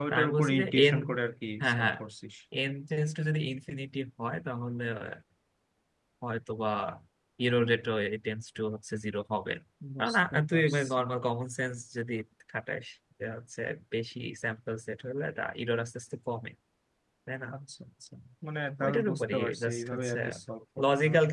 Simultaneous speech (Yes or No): Yes